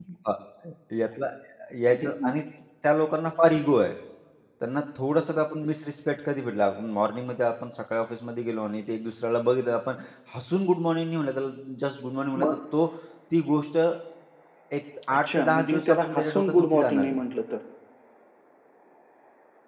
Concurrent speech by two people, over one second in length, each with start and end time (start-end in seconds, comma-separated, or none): 15.1-17.2